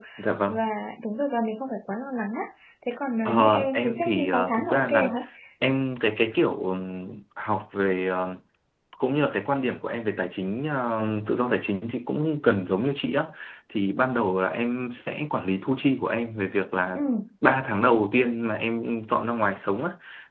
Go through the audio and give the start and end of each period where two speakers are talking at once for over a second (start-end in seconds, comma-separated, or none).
3.2-5.1